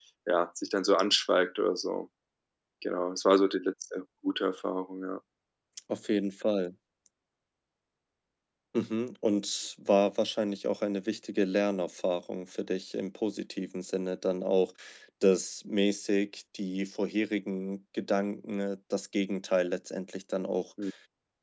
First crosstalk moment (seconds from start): none

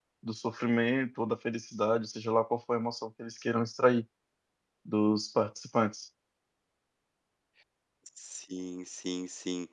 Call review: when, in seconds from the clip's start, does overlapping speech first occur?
none

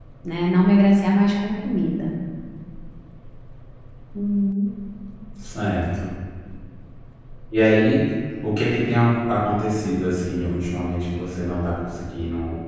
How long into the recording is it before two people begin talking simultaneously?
none

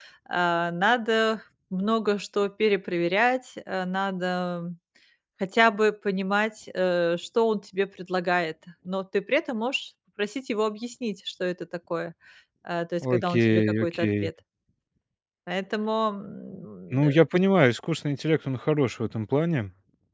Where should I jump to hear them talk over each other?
13.0 s

